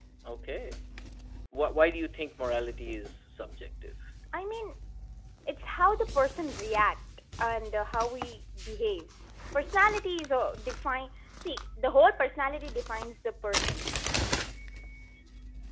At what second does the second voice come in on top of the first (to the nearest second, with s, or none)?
none